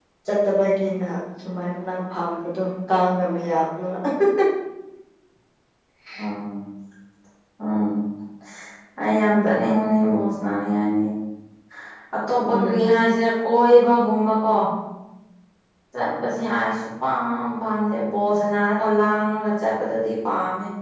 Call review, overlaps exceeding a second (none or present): none